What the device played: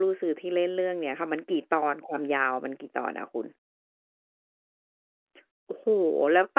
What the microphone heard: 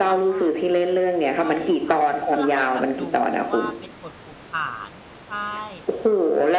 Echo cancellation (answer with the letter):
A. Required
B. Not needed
A